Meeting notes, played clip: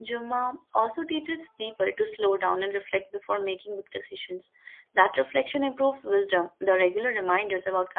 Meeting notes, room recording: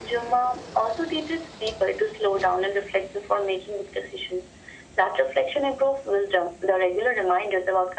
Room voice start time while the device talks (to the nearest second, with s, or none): none